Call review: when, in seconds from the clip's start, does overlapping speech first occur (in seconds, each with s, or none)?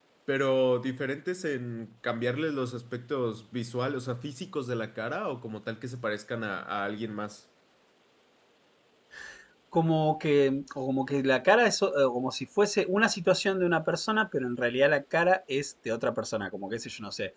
none